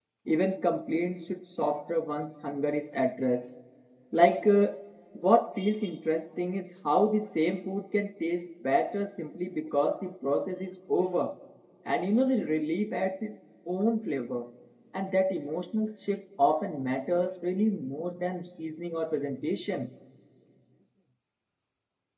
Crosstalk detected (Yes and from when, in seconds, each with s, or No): No